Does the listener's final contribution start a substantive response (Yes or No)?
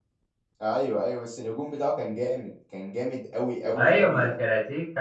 Yes